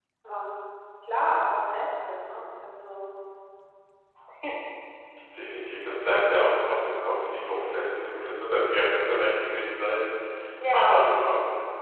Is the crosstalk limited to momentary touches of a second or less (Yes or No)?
Yes